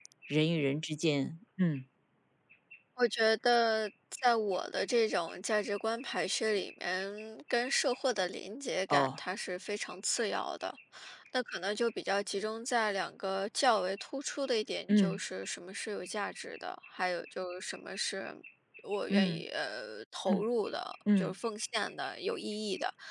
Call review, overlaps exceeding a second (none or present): none